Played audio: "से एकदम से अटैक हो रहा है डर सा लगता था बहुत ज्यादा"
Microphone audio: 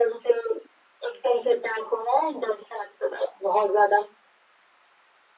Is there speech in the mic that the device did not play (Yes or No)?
No